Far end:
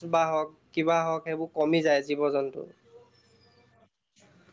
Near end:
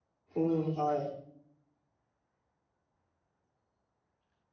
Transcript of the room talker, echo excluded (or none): উম হয়।